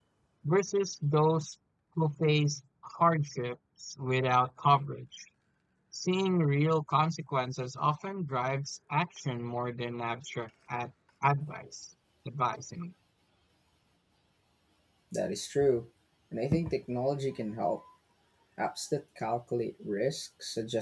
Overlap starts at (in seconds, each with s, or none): none